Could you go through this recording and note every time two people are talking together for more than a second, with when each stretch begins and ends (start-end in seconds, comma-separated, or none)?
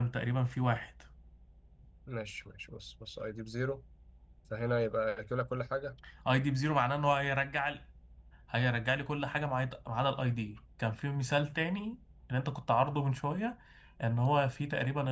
none